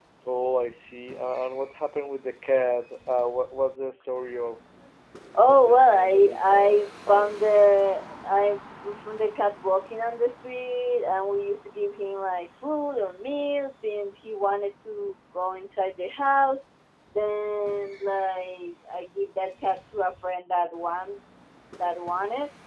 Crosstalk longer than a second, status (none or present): present